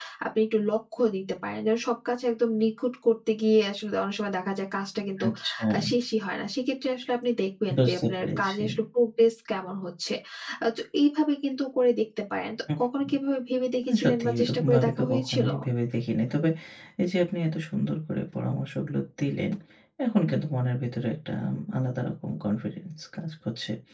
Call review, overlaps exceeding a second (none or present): present